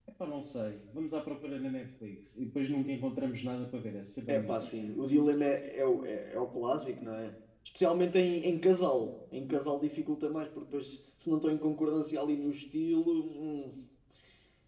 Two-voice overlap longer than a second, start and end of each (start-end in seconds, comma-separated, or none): none